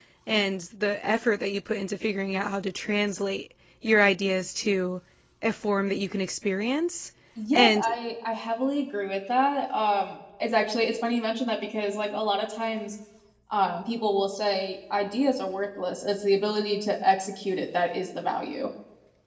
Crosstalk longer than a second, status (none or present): none